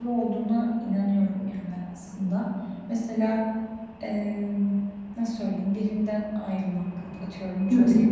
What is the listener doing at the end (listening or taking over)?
listening